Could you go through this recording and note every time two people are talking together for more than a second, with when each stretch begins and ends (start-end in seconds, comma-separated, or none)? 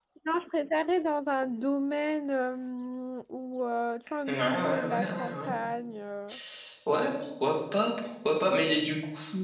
4.3-5.5